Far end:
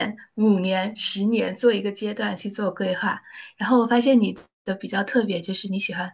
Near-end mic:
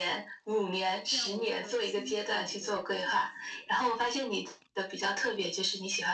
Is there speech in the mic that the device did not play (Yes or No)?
Yes